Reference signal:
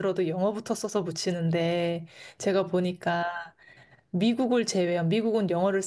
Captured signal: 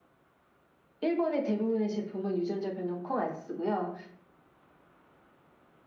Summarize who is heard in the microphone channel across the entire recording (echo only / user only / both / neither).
user only